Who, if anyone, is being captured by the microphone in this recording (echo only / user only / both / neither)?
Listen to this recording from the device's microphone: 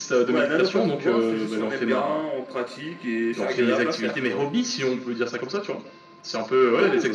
echo only